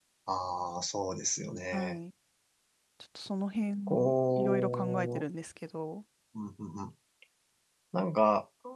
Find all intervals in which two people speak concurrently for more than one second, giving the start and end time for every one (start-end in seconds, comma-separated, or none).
3.9-5.2